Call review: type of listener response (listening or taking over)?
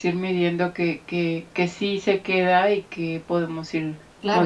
taking over